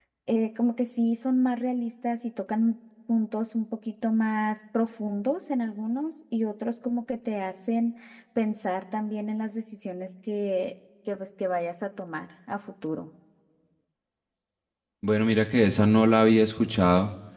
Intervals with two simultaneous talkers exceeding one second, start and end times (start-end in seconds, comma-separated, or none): none